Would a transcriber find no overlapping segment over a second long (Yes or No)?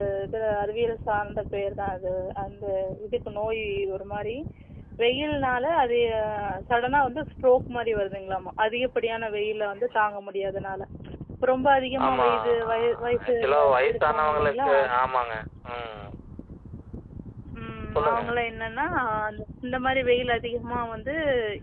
No